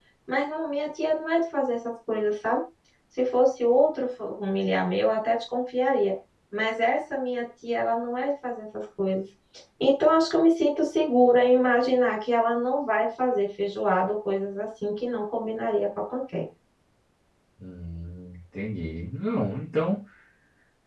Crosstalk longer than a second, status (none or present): none